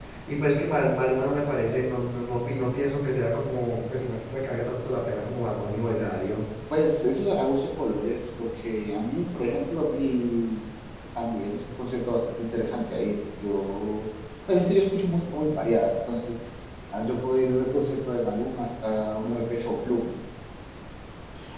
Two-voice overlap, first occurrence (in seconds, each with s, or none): none